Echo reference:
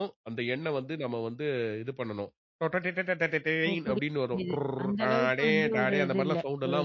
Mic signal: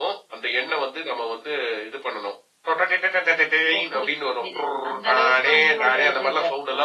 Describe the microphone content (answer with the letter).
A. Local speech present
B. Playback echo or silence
B